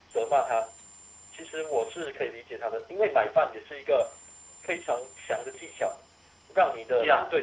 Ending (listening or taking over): taking over